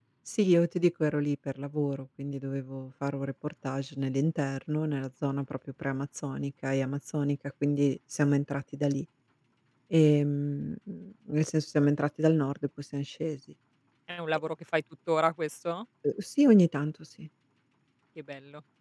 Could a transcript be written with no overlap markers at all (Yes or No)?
Yes